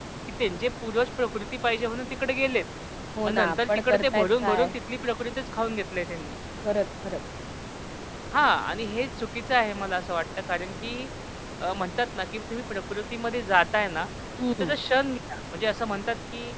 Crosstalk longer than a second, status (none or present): present